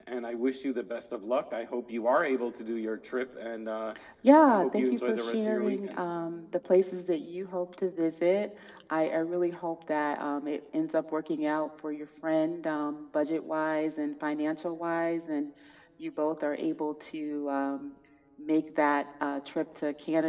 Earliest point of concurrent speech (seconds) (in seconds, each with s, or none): 4.5 s